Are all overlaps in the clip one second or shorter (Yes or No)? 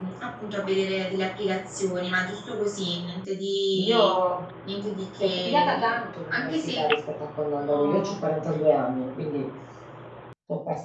No